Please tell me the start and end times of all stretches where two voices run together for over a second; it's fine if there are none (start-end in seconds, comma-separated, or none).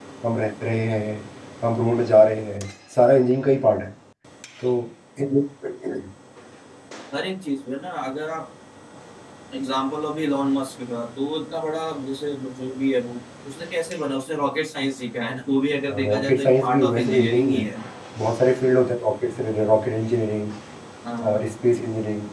16.0-17.7